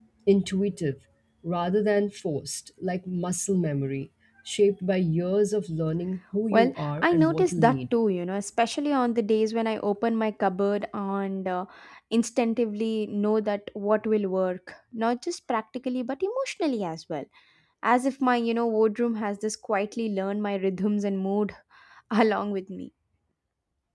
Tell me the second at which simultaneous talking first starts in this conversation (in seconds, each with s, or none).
6.5 s